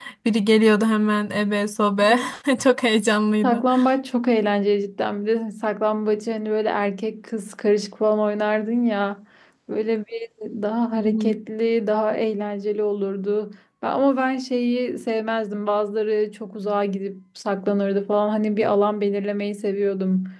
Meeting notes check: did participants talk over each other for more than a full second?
No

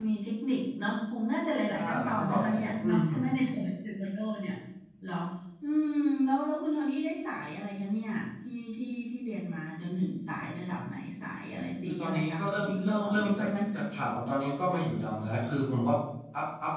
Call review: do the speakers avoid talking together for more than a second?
No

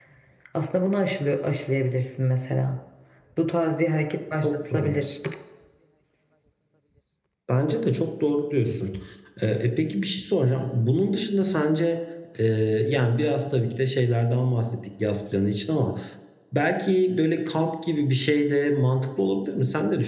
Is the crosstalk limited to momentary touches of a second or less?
Yes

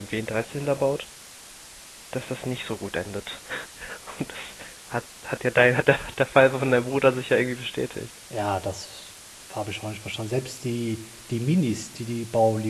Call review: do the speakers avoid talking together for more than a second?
Yes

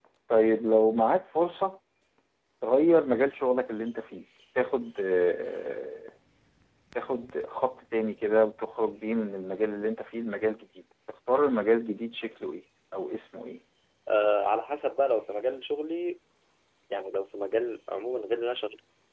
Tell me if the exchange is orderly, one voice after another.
Yes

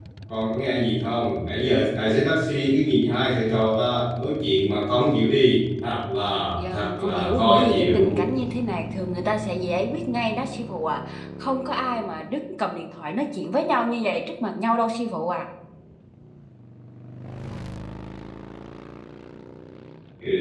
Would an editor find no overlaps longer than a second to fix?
No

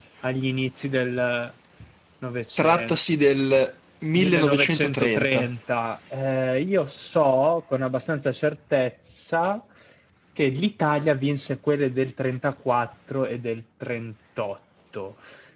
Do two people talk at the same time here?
Yes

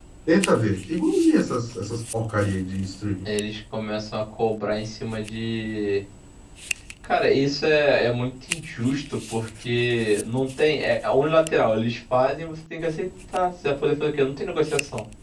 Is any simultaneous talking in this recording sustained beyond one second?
No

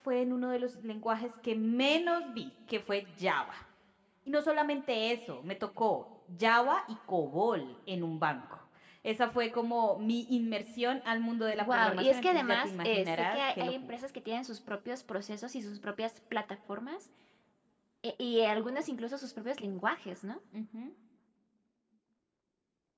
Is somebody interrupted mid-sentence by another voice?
Yes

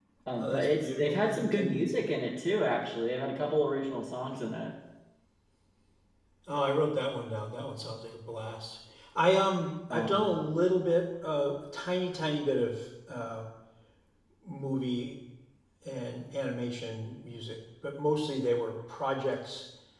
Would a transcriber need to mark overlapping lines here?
Yes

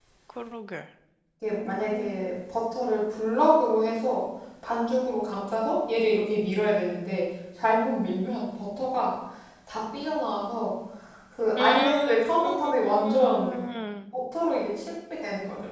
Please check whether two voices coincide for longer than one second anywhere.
Yes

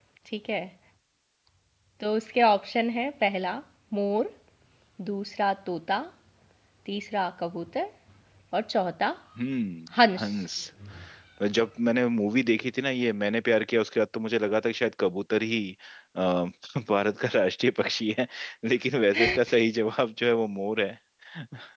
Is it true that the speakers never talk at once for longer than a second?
Yes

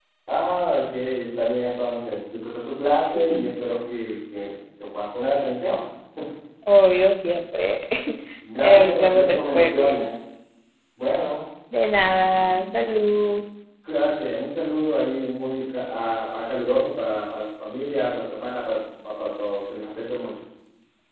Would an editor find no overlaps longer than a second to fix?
No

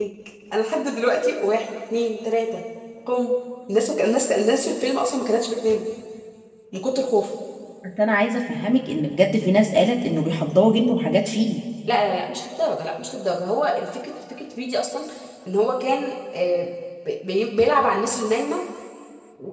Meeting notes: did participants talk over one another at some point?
No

